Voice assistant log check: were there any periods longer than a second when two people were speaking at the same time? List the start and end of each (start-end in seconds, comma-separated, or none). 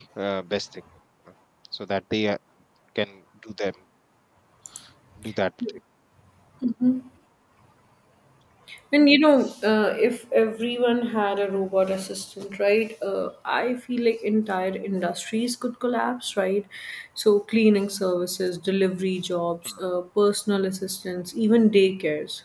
none